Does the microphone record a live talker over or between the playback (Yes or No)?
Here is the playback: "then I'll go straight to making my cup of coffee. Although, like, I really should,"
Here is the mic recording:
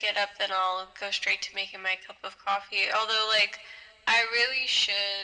No